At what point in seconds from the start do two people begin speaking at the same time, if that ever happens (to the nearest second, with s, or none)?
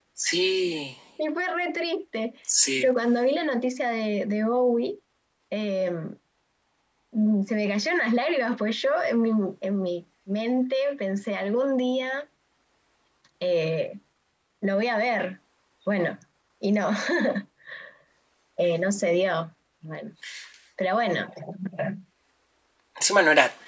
none